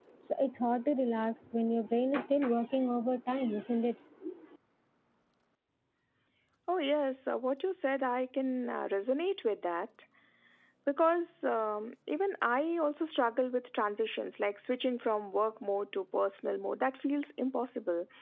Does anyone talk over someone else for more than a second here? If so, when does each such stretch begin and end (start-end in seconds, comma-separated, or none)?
none